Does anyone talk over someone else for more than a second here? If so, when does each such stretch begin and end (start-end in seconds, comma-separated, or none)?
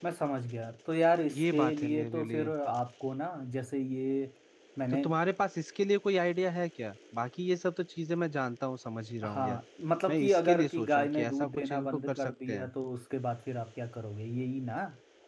1.3-2.5, 10.1-12.7